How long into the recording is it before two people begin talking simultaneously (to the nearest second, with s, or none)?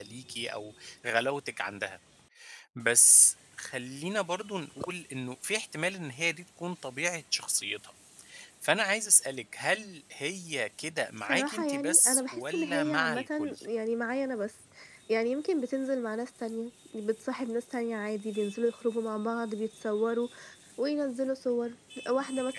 11 s